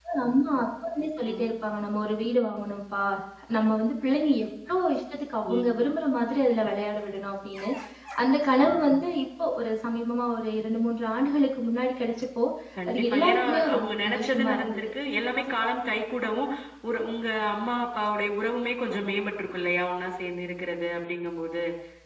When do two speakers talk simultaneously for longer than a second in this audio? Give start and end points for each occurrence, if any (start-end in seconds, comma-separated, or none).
12.9-14.8